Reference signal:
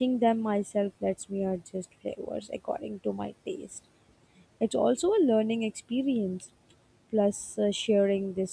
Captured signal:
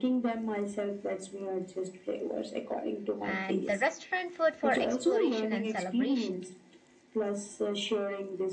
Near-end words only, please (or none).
and the restaurant food for exploration and celebration.